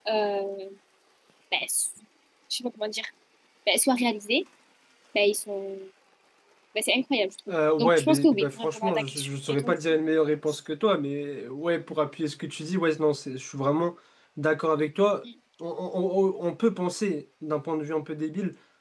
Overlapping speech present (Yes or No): Yes